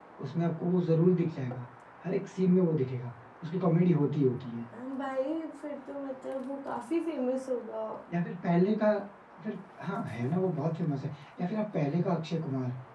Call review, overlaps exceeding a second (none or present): none